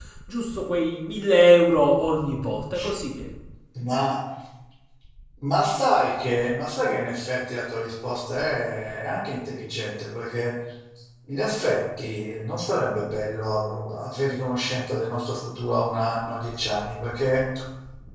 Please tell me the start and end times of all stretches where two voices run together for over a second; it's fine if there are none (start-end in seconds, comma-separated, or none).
none